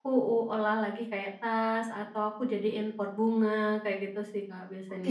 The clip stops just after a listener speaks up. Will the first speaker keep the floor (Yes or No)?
No